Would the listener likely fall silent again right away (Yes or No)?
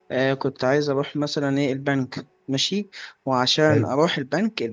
Yes